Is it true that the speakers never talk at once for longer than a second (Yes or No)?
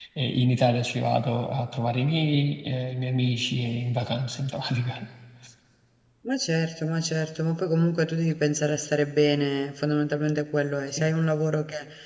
Yes